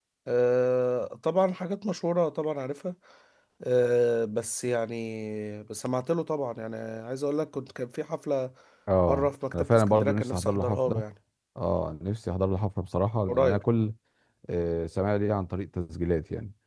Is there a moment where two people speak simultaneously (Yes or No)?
Yes